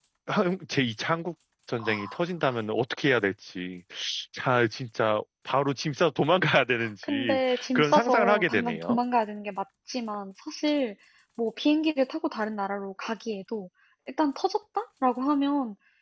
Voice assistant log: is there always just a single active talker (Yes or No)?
No